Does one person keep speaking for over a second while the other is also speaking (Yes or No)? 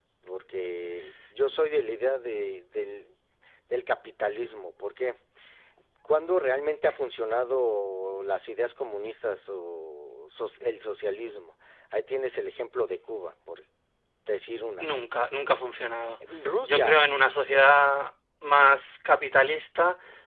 No